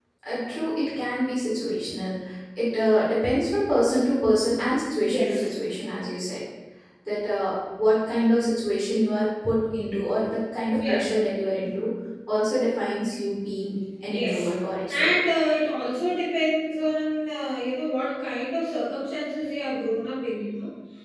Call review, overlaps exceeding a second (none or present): none